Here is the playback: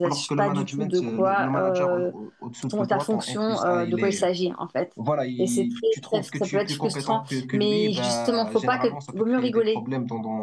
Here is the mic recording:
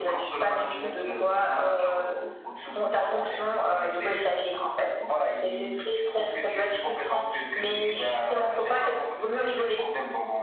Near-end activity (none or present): none